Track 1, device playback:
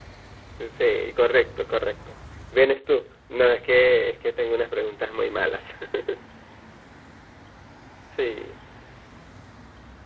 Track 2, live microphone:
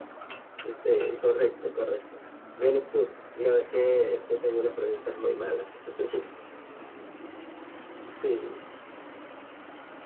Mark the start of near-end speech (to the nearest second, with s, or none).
none